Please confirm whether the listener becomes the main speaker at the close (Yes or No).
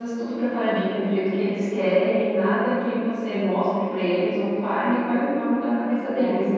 No